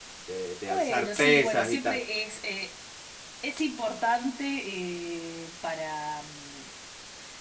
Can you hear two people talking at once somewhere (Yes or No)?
Yes